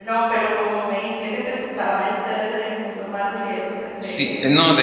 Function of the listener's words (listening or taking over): taking over